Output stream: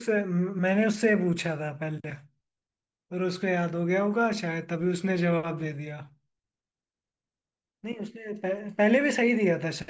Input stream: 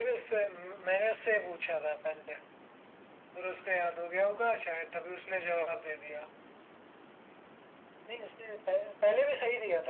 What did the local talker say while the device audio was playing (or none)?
none